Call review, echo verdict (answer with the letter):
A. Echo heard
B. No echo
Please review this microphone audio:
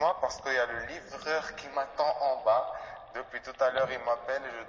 A